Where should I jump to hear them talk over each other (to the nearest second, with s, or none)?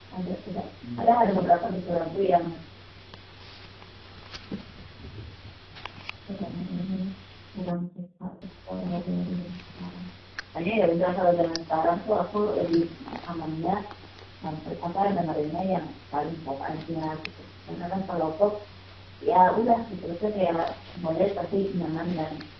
1 s